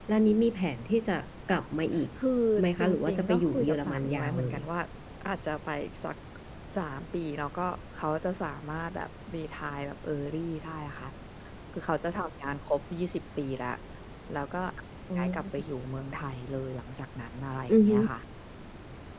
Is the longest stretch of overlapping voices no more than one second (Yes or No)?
No